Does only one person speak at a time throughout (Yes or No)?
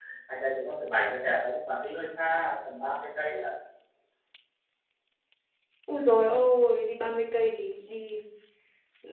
Yes